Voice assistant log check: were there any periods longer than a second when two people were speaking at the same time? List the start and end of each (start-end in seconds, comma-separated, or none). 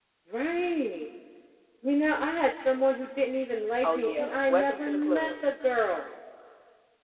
3.8-5.3